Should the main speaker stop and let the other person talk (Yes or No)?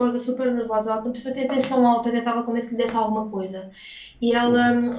No